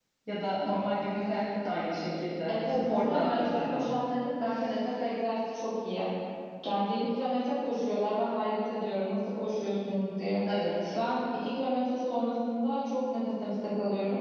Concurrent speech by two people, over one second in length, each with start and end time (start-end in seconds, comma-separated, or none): 2.5-3.9